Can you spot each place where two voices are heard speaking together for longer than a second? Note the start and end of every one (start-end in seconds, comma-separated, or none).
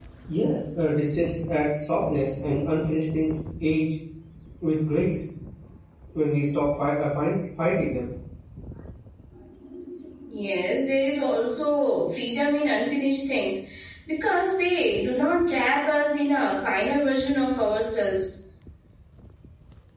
none